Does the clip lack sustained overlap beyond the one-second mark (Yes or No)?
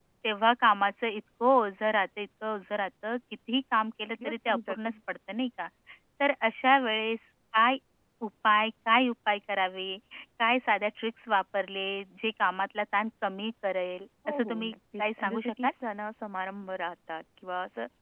No